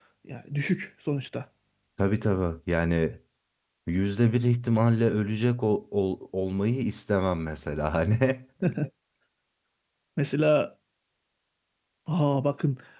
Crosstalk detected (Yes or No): No